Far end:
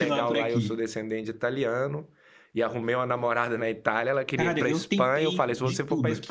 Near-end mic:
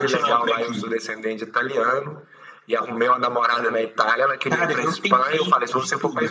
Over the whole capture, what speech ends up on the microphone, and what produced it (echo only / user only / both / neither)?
echo only